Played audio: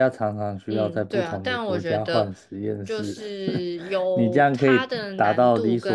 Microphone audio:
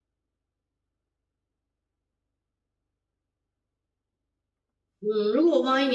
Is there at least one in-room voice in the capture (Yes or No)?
Yes